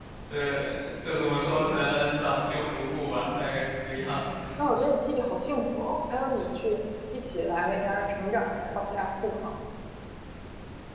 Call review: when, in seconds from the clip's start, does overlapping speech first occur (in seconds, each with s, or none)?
none